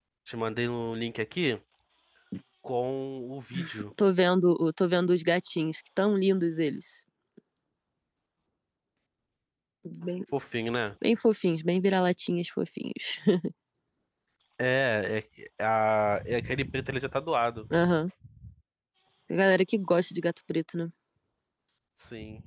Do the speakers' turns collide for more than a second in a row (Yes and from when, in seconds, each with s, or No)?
No